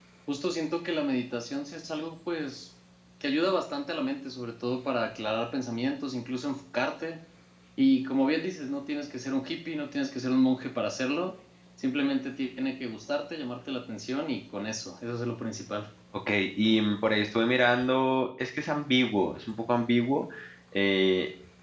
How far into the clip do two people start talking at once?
none

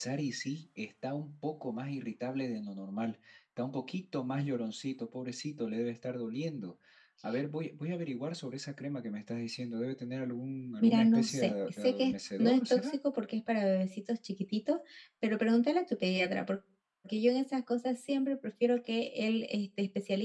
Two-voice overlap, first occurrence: 10.8 s

